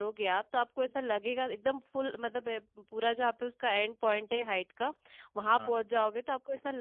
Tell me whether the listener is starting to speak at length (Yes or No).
No